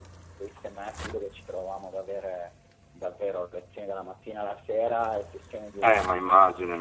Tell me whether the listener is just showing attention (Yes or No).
No